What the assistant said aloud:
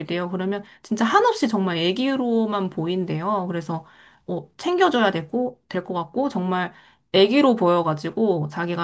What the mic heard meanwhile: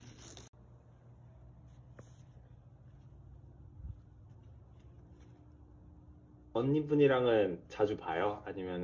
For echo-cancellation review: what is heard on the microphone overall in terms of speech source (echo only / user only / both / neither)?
user only